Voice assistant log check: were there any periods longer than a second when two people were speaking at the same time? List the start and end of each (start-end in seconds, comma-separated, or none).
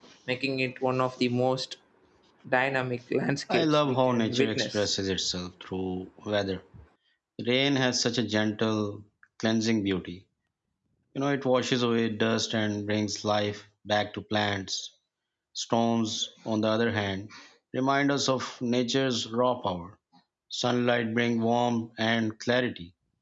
3.5-4.9